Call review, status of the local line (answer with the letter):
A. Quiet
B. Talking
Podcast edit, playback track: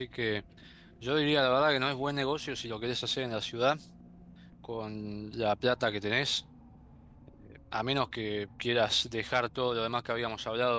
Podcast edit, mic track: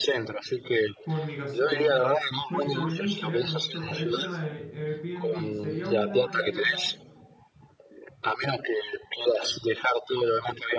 B